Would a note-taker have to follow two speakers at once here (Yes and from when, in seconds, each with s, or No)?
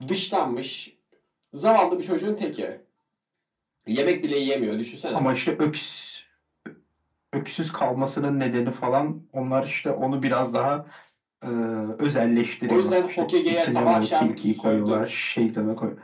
Yes, from 12.7 s